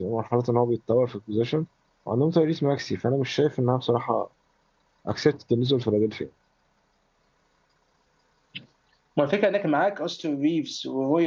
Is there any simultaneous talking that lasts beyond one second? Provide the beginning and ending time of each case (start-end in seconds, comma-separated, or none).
none